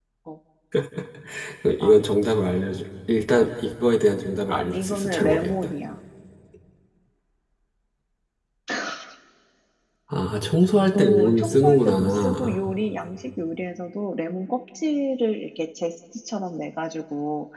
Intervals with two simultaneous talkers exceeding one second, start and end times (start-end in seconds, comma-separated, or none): 4.5-5.7, 10.9-12.6